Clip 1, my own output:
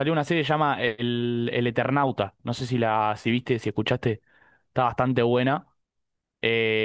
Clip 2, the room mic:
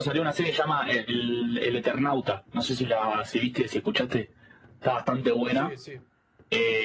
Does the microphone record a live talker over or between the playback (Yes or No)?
Yes